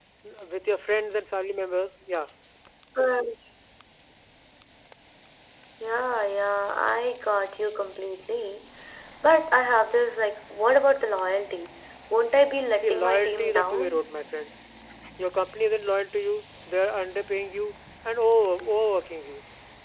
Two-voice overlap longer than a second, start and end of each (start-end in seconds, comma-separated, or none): 12.8-14.1